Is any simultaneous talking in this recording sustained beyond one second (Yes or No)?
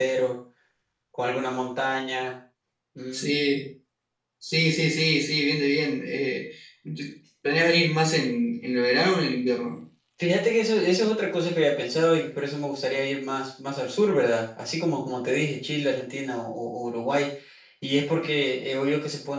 No